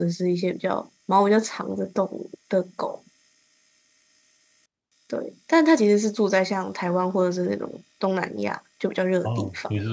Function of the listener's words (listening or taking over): taking over